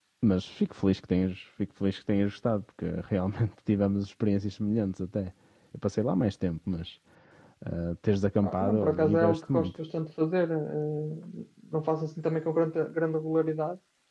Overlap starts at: 8 s

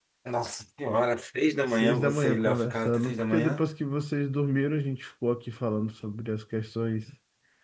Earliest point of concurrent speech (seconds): 2 s

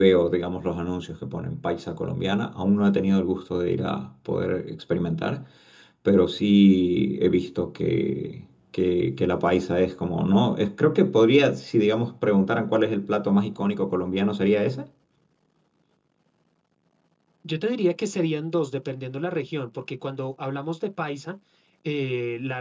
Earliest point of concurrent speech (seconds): none

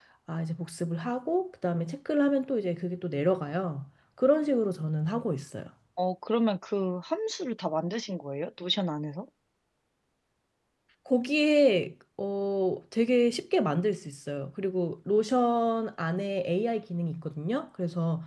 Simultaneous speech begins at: none

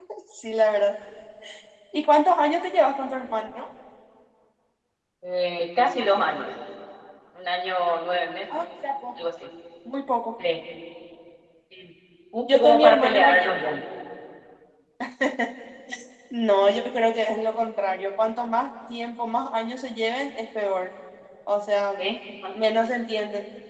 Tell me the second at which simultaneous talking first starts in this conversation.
13 s

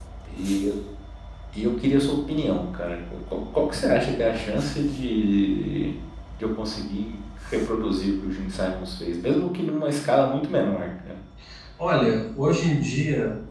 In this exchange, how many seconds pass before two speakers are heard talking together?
none

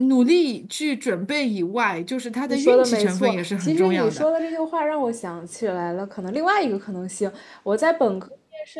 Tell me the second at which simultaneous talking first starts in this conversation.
2 s

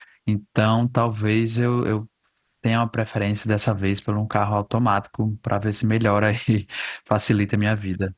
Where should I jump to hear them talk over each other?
none

